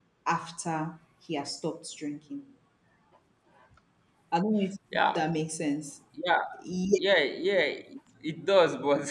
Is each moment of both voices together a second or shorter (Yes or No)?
Yes